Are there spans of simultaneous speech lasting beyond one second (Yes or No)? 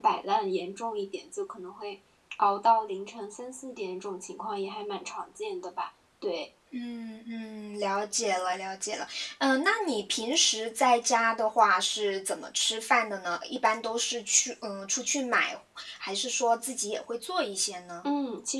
No